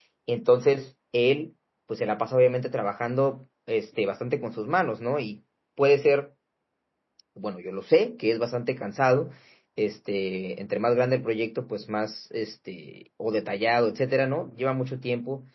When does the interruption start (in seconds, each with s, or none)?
none